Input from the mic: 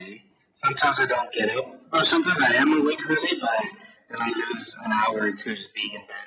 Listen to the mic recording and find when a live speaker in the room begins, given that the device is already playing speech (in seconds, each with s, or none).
none